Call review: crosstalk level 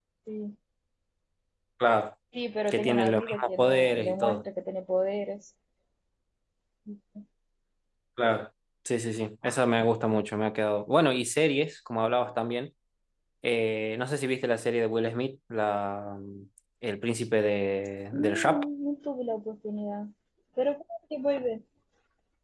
present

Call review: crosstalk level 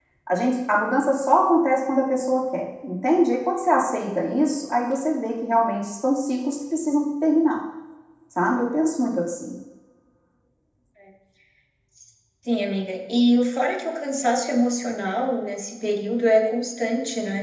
none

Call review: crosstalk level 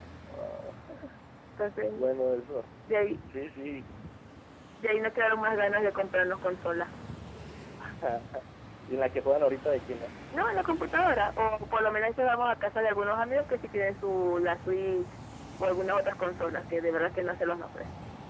none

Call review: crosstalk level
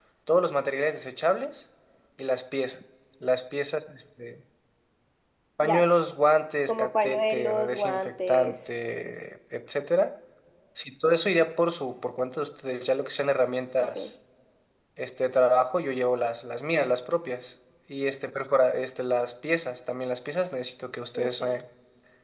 present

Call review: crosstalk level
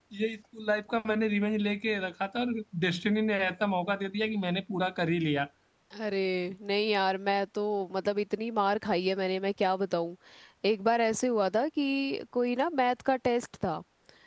none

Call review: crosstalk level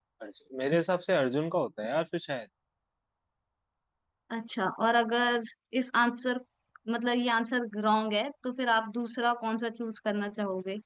none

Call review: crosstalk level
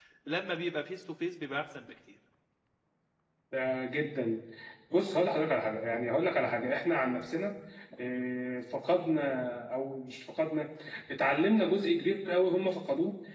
none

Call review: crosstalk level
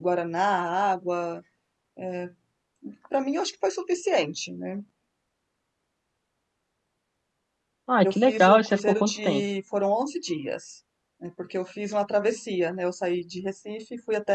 present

